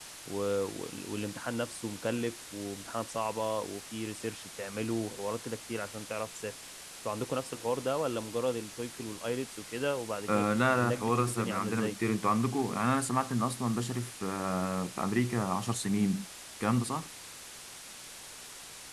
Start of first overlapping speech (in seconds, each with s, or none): 10.3 s